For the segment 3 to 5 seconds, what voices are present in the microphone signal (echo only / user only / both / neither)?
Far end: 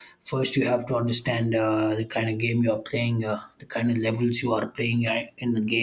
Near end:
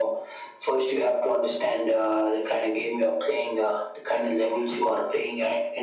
echo only